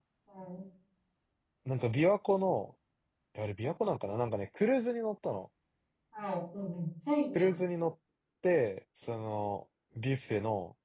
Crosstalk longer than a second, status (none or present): none